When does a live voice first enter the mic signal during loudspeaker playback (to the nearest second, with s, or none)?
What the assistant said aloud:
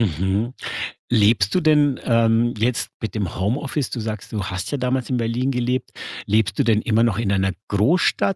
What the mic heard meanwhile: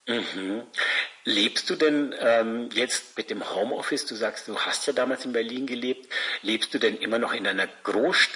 none